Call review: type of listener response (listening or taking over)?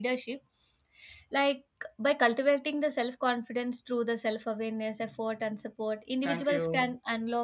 listening